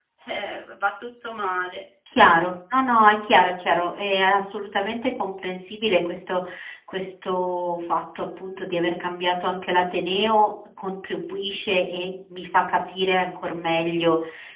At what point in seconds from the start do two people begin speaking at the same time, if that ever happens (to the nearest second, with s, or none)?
none